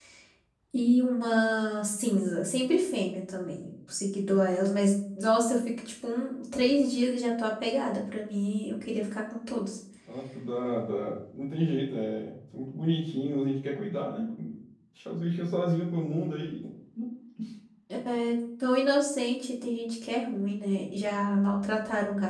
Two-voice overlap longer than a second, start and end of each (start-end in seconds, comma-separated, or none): none